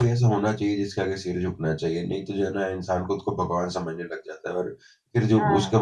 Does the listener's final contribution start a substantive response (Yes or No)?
No